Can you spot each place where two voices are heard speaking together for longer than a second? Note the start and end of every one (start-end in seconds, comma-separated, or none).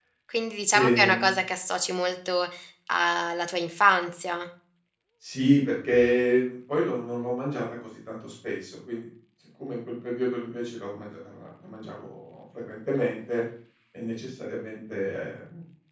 none